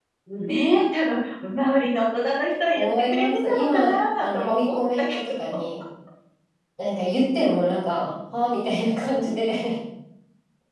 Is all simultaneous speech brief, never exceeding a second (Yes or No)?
No